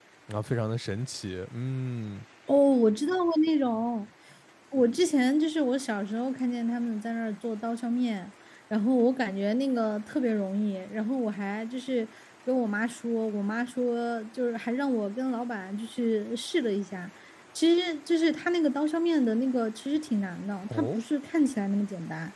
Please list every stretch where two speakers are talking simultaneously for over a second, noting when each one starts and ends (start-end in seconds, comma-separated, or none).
none